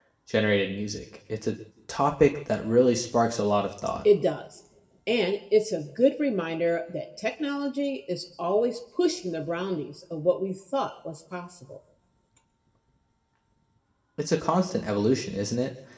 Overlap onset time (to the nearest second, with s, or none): none